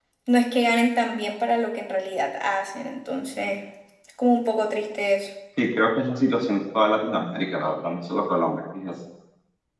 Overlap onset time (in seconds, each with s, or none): none